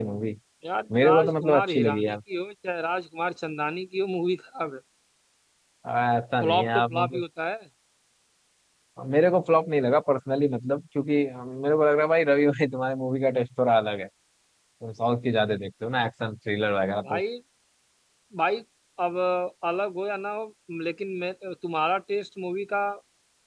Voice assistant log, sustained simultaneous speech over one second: present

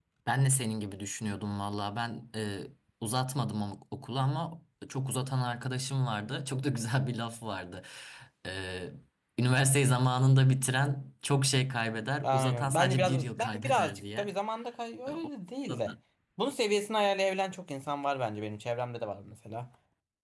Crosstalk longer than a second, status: present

